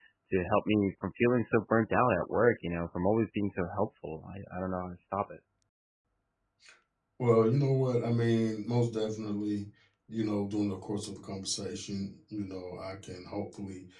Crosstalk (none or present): none